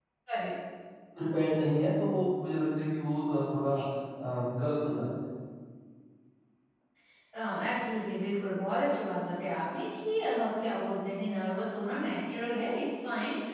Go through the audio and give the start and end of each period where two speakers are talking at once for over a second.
none

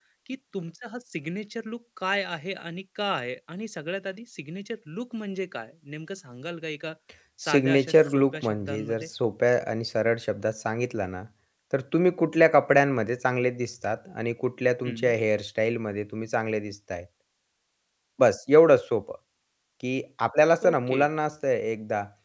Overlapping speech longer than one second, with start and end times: 7.5-9.1

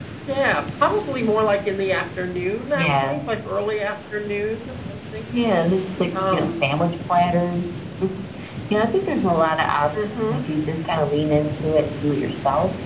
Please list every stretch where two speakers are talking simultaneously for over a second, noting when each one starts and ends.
none

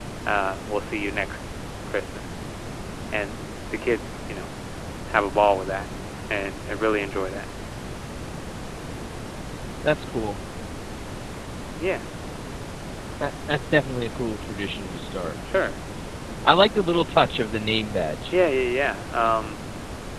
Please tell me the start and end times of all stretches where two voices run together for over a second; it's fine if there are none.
none

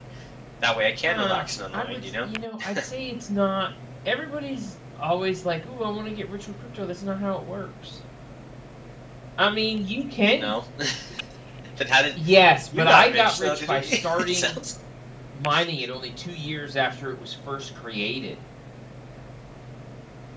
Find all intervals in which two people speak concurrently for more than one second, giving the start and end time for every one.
1.0-2.3, 12.7-14.6

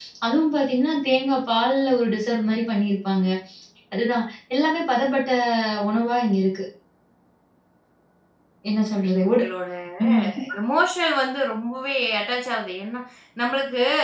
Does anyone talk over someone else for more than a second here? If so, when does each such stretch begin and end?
none

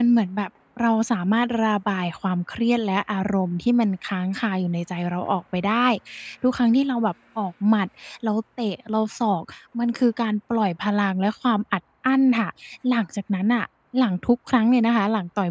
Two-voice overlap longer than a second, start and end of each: none

